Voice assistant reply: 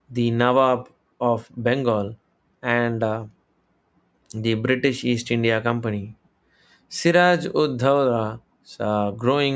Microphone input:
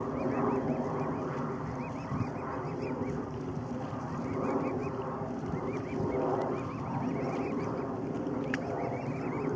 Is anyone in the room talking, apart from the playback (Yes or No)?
No